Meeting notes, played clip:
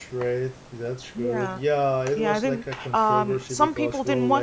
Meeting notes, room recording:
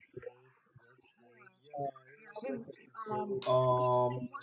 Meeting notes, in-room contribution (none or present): present